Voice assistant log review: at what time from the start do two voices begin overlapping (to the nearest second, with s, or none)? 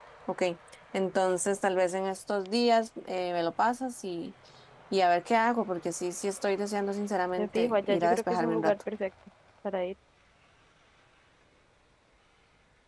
7 s